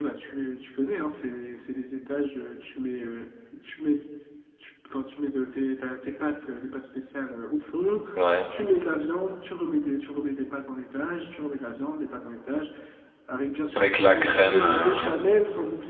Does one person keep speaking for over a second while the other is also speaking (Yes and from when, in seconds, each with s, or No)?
Yes, from 13.7 s